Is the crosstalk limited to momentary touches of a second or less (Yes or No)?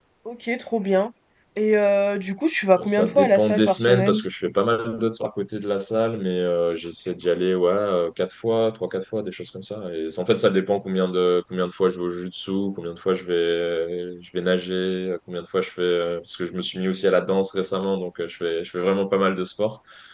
No